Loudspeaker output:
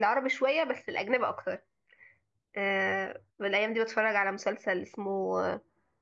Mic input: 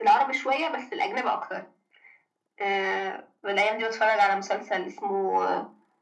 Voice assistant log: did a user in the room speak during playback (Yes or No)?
No